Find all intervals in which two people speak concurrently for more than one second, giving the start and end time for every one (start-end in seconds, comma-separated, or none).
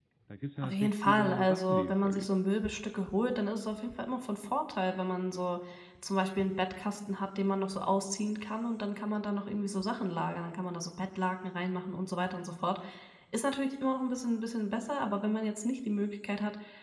0.6-2.3